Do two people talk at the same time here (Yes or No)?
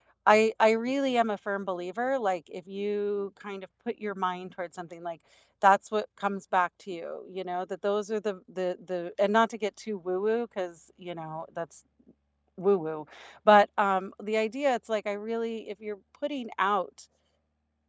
No